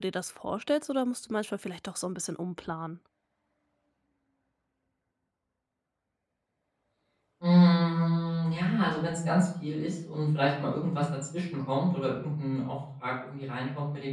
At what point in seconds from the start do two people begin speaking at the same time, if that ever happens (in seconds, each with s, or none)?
none